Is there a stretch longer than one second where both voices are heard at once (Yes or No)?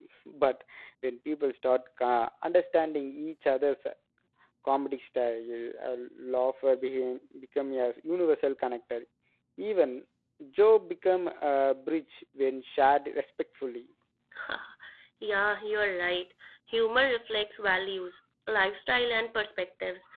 No